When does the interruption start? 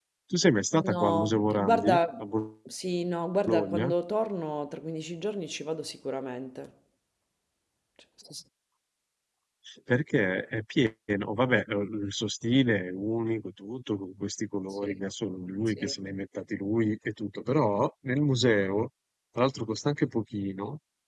0.8 s

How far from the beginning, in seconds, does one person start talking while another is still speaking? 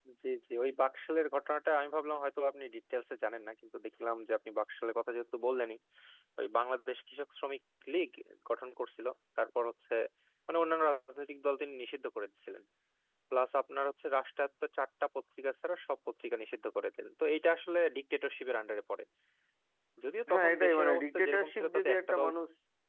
20.3 s

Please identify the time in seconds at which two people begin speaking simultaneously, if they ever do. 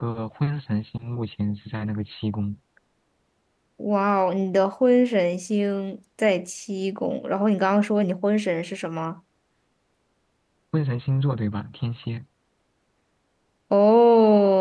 none

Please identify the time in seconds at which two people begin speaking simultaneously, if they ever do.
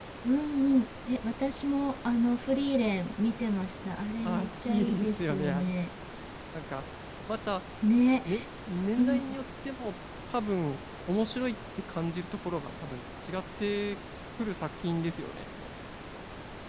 4.2 s

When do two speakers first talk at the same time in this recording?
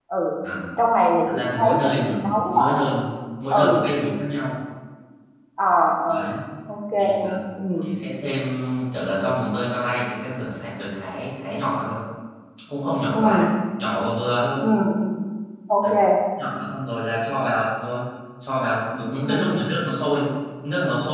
1.3 s

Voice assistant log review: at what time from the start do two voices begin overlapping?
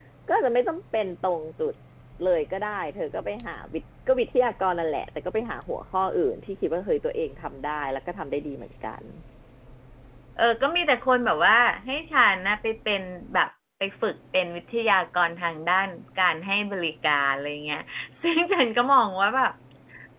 none

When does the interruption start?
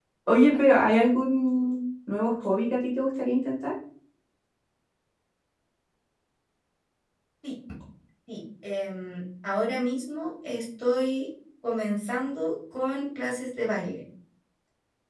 none

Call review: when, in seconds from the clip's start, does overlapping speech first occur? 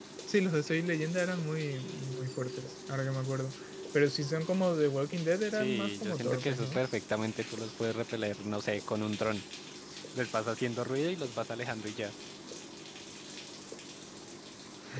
5.5 s

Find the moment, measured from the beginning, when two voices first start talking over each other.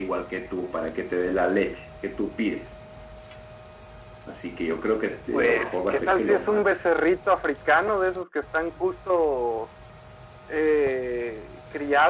5.3 s

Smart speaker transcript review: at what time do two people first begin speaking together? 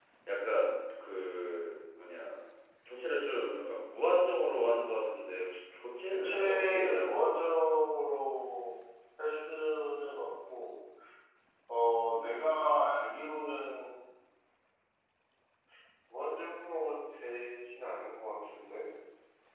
6.1 s

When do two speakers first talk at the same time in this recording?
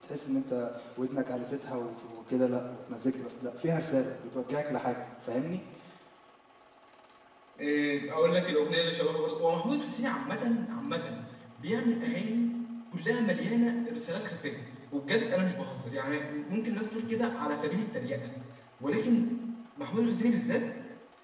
none

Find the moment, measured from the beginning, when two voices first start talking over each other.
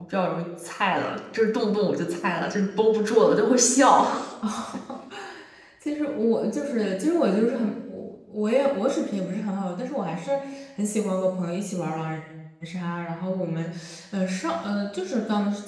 none

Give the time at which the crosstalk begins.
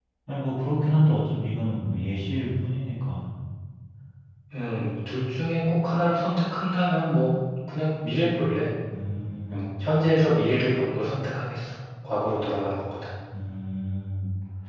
none

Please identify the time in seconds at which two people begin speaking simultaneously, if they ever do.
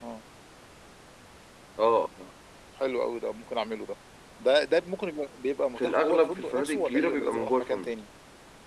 5.8 s

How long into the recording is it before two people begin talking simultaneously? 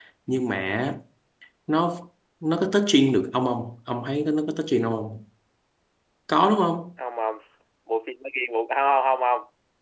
none

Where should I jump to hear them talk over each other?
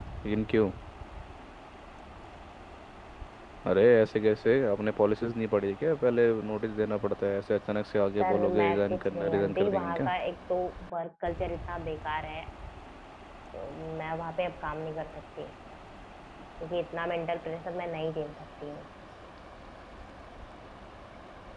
8.2 s

